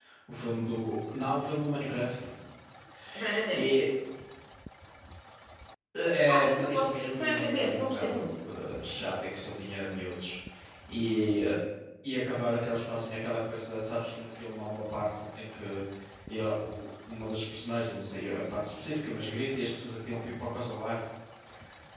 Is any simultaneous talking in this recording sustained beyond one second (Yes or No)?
Yes